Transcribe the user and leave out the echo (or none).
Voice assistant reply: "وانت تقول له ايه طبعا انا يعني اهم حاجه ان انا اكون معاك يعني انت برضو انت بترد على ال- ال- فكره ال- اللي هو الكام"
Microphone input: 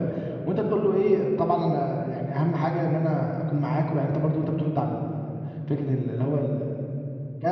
none